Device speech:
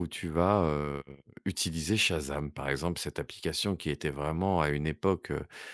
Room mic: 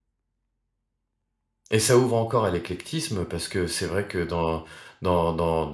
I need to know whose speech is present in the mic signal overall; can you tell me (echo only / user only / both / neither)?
user only